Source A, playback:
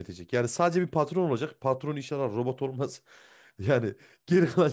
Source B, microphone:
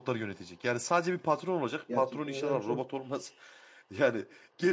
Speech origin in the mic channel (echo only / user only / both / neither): both